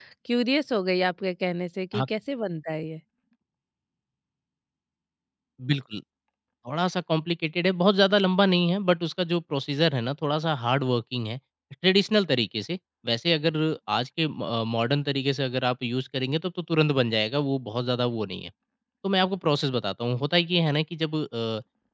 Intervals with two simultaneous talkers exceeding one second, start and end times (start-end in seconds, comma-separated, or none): none